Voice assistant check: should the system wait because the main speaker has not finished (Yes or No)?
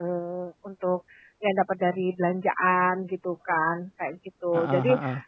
Yes